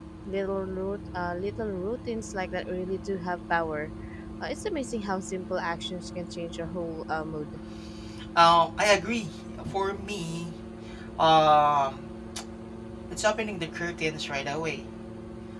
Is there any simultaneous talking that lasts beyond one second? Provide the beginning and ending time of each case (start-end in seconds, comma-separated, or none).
none